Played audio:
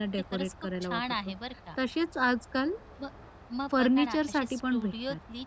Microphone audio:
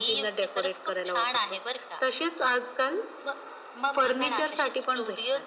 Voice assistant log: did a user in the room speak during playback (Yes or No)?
No